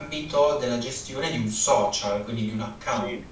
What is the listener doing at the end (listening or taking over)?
taking over